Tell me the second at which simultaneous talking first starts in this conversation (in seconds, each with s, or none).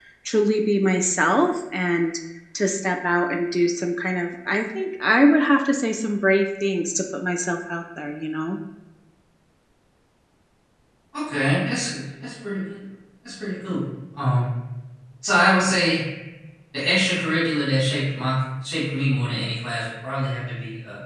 none